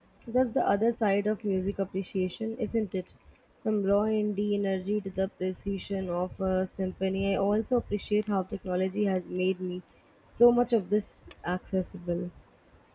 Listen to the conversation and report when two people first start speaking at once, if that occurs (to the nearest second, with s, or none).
none